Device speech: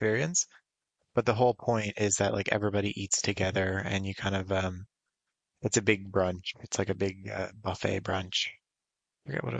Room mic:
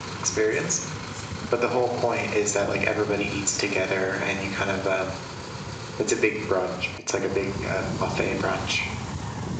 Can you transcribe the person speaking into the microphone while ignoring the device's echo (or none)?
none